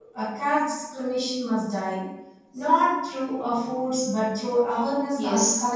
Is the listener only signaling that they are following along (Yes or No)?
No